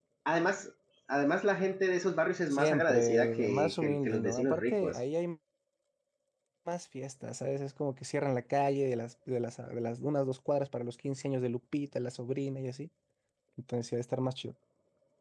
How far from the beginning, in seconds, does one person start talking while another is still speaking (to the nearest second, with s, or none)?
3 s